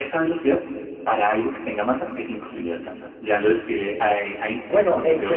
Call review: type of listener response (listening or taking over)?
taking over